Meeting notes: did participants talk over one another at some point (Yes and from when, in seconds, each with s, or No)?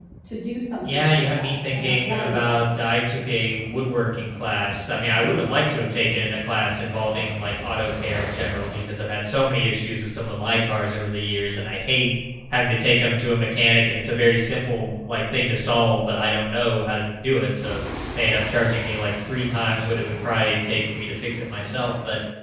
Yes, from 0.9 s